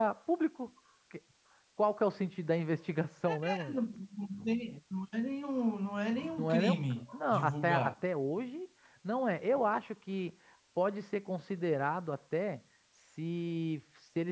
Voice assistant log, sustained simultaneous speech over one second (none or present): present